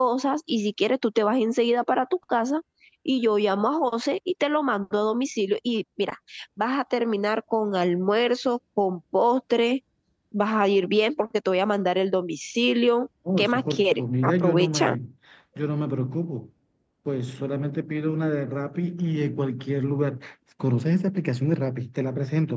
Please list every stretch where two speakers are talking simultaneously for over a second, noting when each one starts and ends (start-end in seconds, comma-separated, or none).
13.4-14.9